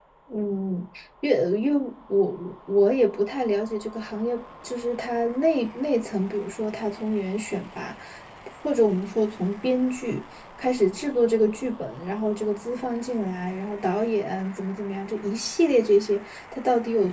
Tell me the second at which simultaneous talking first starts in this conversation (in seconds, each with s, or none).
none